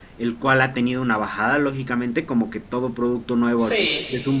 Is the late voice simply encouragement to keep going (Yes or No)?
Yes